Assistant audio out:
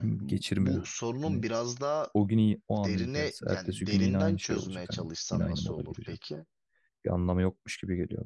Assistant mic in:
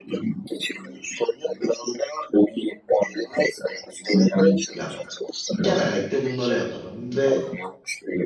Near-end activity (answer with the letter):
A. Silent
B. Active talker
B